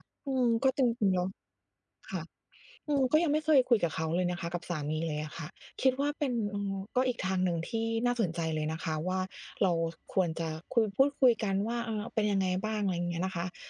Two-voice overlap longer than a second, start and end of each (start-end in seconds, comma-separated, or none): none